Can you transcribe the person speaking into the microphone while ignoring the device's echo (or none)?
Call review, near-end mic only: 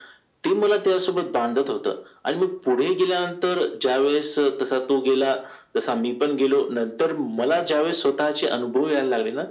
none